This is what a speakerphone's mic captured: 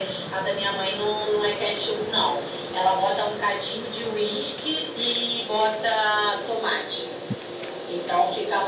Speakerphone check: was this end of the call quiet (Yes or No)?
Yes